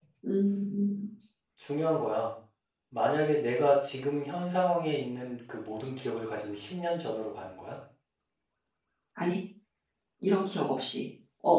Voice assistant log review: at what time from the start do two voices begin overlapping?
none

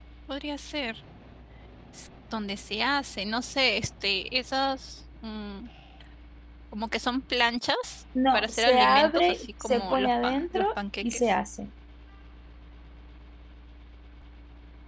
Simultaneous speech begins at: 8.3 s

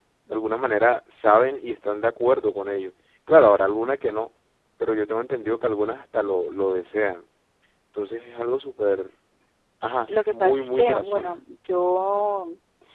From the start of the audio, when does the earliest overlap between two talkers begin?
10.1 s

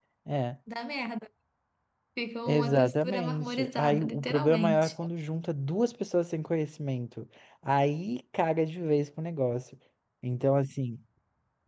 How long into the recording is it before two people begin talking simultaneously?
2.5 s

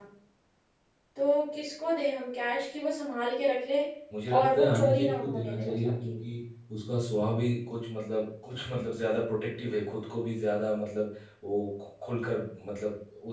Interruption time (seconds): 4.4 s

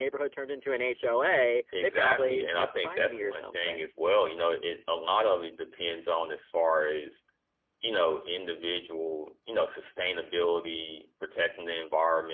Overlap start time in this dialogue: 1.7 s

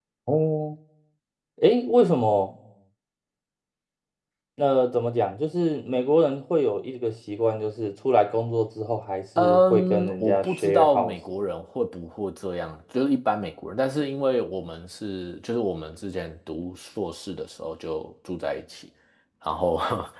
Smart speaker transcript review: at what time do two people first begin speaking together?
9.4 s

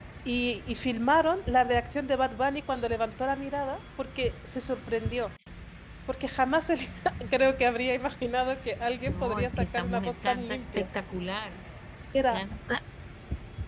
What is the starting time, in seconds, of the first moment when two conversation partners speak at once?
9.0 s

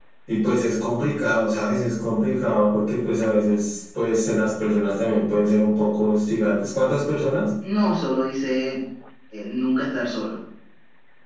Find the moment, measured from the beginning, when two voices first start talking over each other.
none

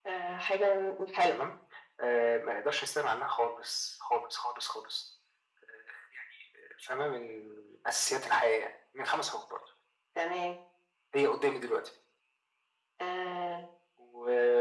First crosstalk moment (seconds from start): none

